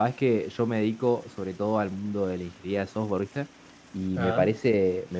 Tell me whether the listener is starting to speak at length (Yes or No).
No